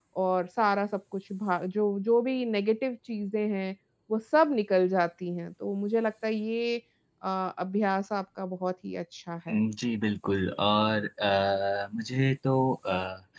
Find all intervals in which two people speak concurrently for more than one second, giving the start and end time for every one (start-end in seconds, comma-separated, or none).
none